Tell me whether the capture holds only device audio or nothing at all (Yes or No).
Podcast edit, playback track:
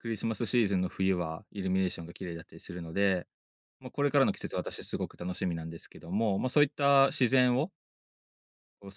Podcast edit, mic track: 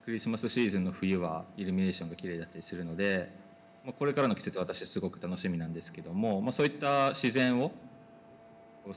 Yes